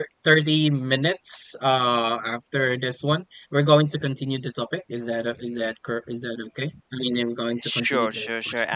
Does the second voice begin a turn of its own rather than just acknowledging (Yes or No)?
Yes